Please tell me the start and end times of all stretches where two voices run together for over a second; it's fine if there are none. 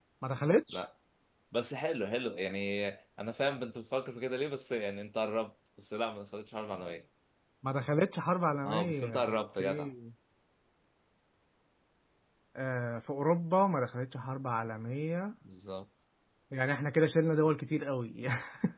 8.6-9.9

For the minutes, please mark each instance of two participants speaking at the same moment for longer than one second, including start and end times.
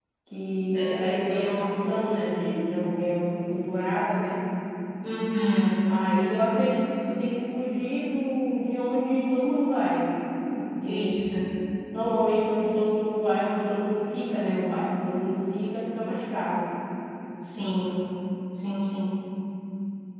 0.6-1.9

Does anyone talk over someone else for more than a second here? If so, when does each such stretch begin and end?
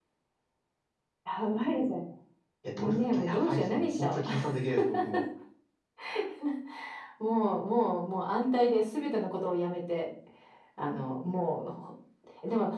2.8-4.2

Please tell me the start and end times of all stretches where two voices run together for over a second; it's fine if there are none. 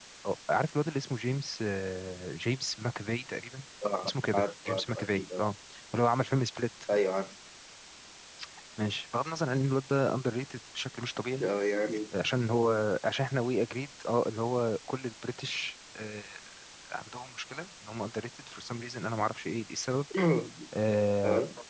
4.0-5.4

